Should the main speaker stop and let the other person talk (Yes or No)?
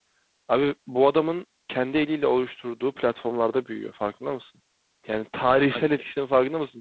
No